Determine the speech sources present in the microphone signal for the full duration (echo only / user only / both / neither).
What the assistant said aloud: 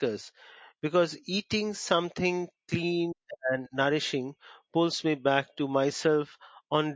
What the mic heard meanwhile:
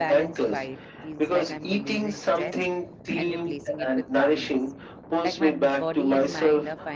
both